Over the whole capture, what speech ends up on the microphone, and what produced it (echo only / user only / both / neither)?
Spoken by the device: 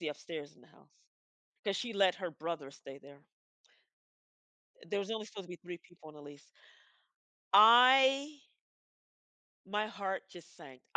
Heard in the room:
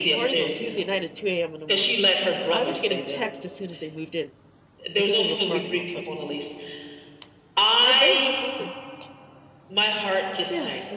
both